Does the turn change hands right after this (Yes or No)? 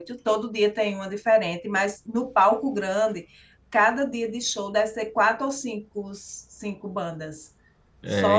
Yes